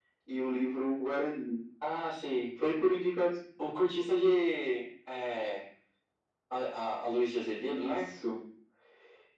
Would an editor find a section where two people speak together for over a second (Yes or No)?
No